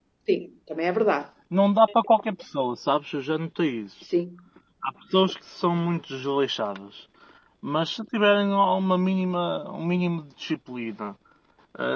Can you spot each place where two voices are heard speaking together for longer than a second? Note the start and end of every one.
none

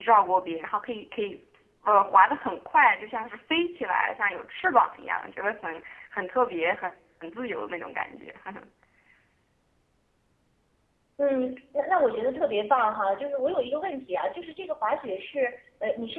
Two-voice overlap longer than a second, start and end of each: none

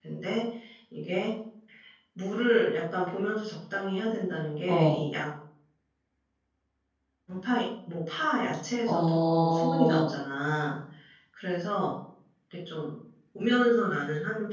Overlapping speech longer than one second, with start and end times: 8.9-10.1

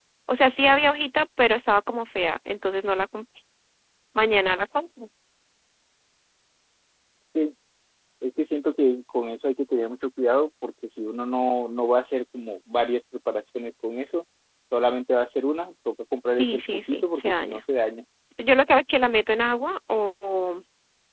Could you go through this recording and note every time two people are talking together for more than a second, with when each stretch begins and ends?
16.4-17.6

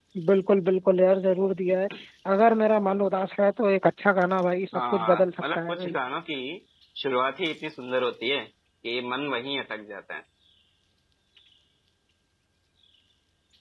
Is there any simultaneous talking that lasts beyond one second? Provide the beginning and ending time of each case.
4.7-5.9

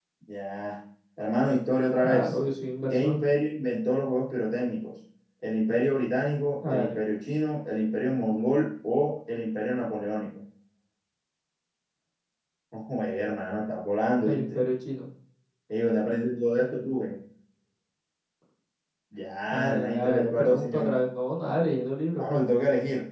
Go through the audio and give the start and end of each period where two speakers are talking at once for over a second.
19.5-20.9

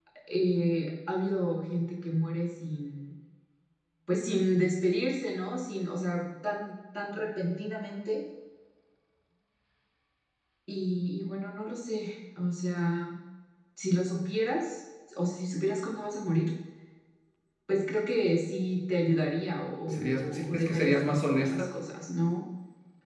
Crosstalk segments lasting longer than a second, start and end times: 19.8-21.6

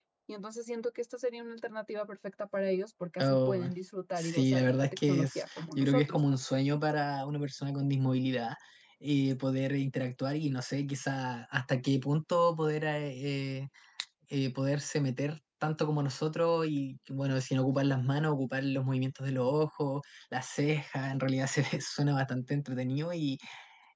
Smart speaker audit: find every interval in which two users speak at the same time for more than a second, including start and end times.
4.2-6.2

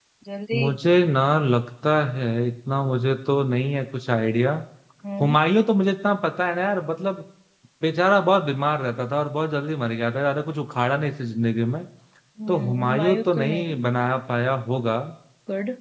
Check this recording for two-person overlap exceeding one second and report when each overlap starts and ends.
12.5-13.8

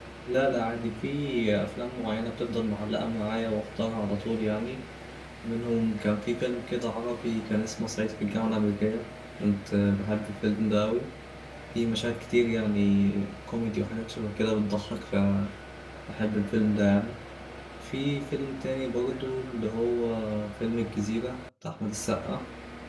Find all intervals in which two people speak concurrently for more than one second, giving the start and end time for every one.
none

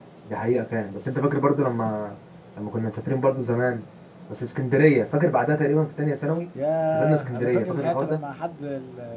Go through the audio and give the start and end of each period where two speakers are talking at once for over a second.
6.9-8.2

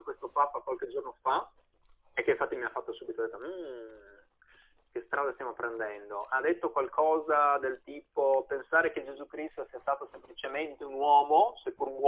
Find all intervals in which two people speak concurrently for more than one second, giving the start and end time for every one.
none

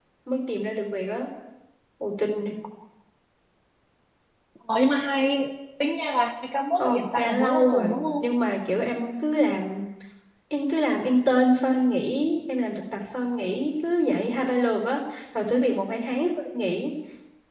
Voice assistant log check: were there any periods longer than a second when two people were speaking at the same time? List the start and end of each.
6.8-8.2

